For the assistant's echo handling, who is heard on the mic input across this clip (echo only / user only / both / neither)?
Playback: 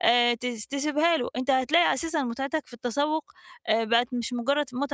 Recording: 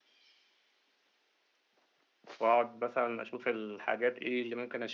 user only